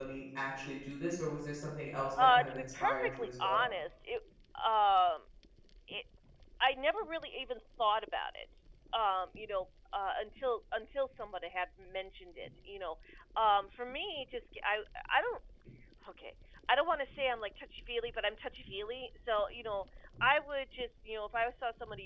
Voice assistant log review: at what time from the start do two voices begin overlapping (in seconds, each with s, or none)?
2.2 s